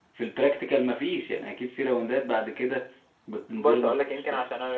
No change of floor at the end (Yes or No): No